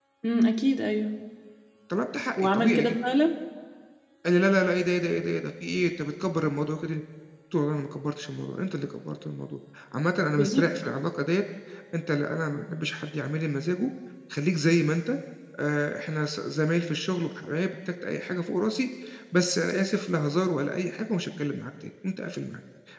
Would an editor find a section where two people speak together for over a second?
No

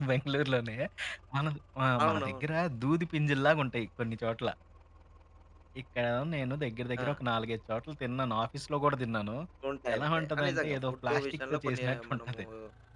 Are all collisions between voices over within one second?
No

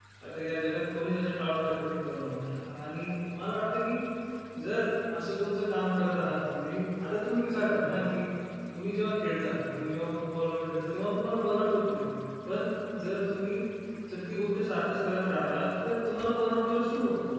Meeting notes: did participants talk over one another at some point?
No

